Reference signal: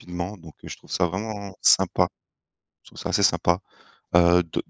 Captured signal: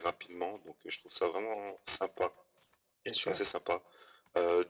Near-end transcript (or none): Bien sûr.